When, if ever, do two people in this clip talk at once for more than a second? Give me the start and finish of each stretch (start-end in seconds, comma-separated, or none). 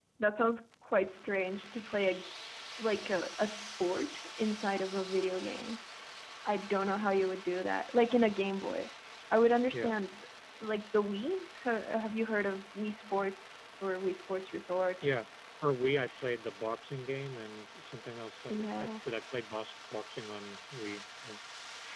none